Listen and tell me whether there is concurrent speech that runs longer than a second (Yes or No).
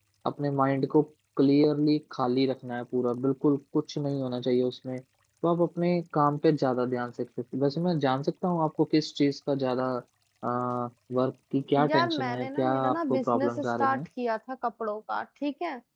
Yes